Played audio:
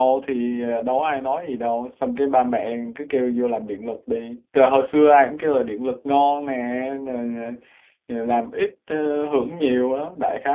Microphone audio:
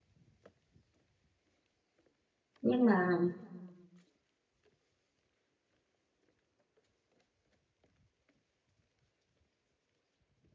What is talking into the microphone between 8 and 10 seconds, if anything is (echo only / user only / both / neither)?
neither